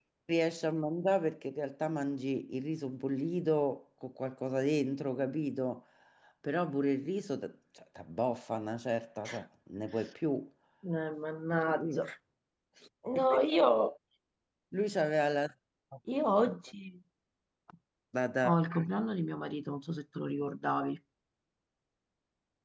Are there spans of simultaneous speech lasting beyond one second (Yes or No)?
No